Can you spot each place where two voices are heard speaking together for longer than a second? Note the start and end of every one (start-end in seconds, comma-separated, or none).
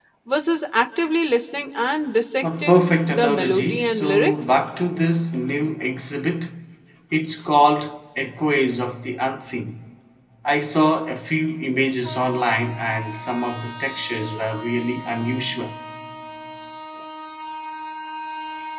2.4-4.6